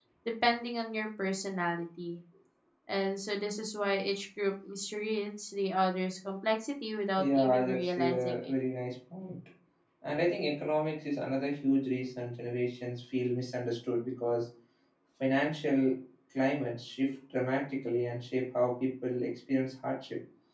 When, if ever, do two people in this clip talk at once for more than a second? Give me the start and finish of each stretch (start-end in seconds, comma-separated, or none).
7.2-8.4